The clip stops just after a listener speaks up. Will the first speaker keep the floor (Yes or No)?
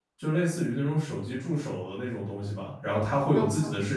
Yes